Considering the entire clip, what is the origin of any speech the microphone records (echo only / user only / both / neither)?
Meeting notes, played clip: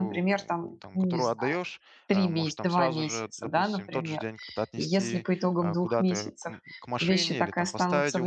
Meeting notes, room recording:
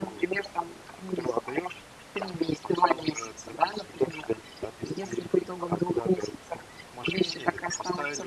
echo only